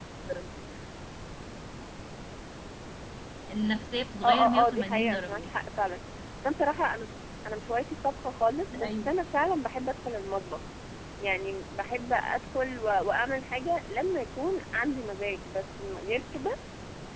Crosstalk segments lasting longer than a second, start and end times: 4.2-5.5

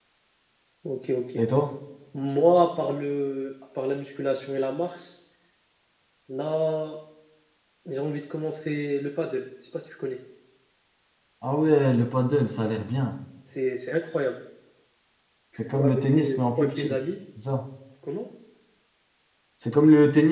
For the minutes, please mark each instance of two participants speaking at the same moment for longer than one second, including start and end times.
15.6-17.0

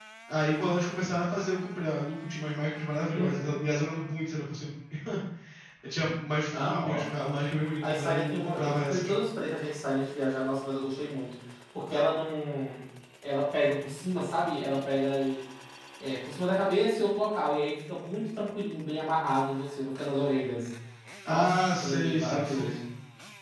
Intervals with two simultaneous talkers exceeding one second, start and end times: 7.8-9.1, 21.3-22.8

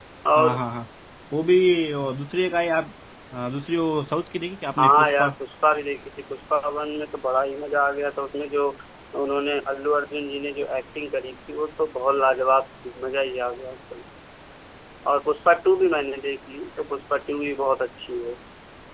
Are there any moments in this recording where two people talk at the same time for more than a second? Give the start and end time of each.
none

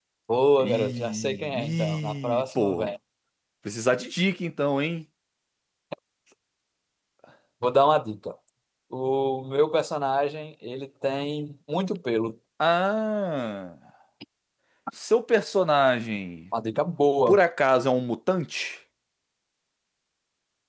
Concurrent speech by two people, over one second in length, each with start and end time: 0.6-2.9

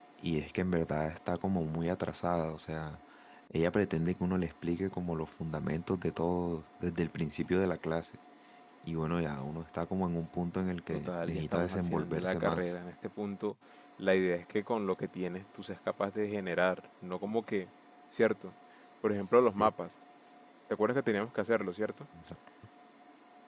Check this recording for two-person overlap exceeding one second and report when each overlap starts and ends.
10.9-12.7

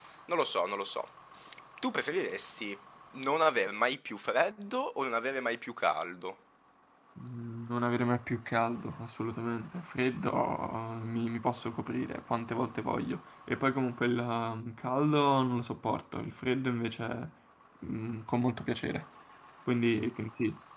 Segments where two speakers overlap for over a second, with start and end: none

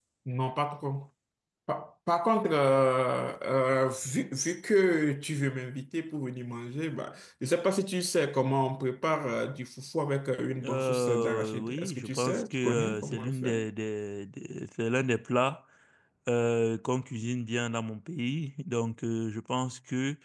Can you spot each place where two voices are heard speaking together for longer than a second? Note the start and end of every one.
10.6-13.6

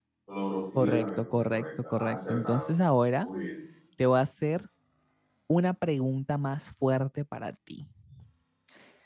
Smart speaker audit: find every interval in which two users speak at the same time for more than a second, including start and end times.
0.8-2.7

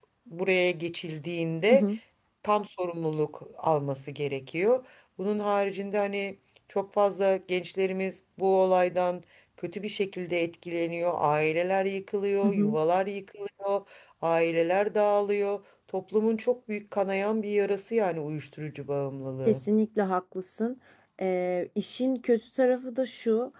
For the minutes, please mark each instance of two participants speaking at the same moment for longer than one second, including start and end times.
none

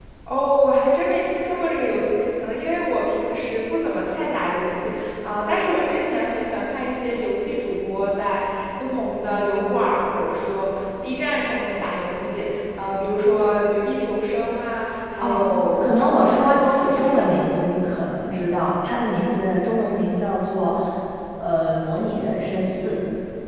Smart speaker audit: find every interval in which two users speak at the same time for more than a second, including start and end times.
15.8-17.5

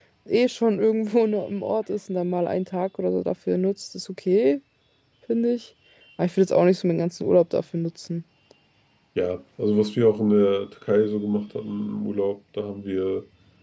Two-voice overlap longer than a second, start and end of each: none

